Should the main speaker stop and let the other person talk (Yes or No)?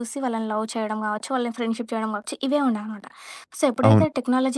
No